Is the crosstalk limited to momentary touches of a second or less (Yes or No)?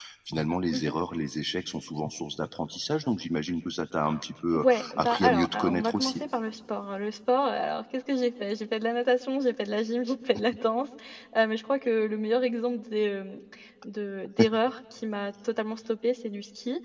No